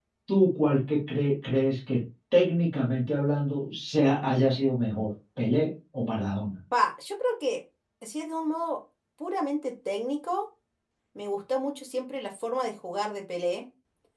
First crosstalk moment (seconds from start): none

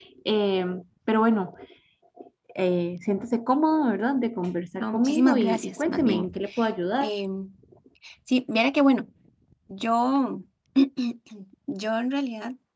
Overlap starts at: 4.8 s

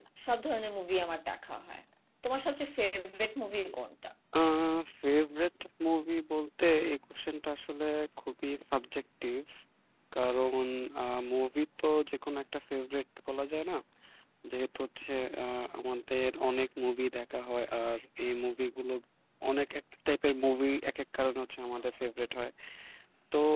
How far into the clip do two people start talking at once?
none

